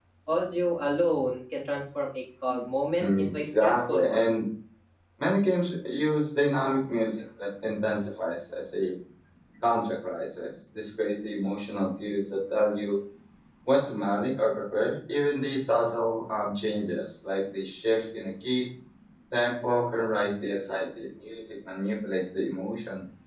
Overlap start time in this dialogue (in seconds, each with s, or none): 3.0 s